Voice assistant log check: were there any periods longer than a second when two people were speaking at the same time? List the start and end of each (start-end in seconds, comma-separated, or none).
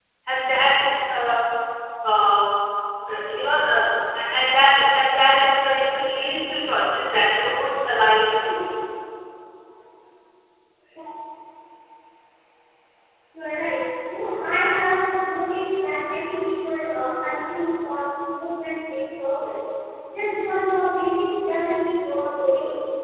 none